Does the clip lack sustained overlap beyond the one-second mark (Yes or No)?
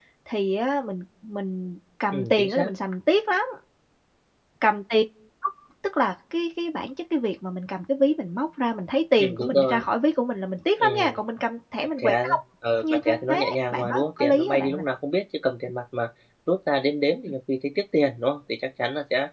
No